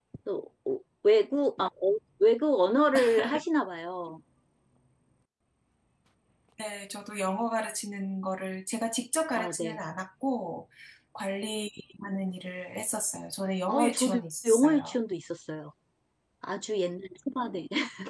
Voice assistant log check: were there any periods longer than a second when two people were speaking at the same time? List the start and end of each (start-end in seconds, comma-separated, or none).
13.7-15.0